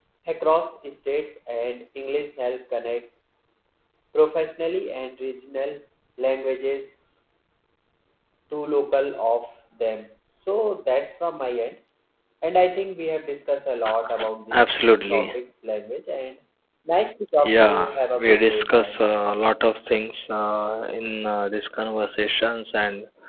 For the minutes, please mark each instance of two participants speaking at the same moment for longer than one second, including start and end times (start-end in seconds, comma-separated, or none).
17.4-19.5